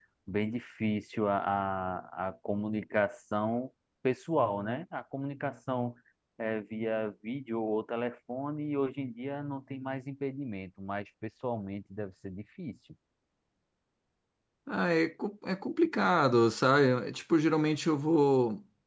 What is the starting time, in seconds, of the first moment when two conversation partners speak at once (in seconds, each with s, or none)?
none